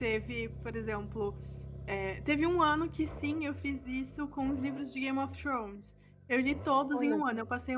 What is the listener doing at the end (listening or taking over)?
listening